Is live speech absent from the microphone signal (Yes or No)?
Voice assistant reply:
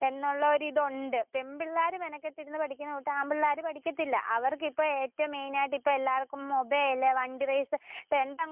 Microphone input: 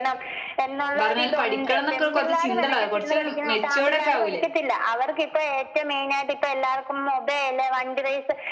No